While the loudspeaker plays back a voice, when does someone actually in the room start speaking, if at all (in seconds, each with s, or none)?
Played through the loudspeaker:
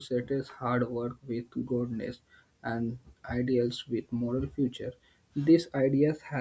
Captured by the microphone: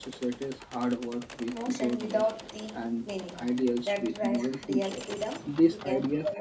1.5 s